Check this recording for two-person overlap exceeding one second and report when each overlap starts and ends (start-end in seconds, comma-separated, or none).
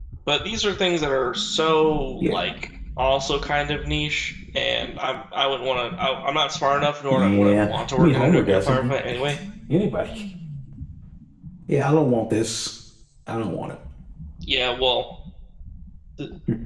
7.1-8.9